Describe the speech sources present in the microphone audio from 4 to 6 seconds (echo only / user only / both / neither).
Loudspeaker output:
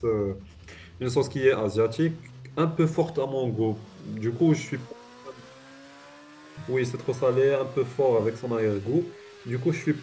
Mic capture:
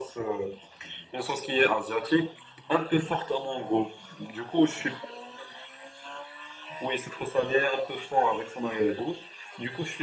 echo only